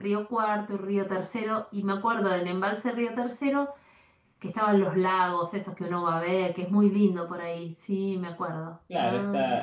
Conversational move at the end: taking over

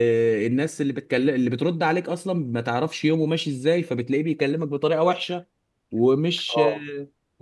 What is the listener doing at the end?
listening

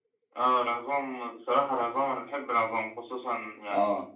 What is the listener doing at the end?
listening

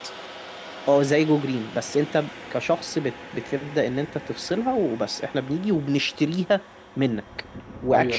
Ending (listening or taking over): listening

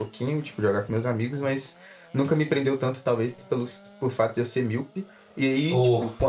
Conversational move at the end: listening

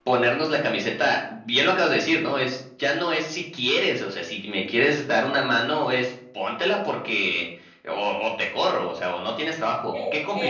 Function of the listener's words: taking over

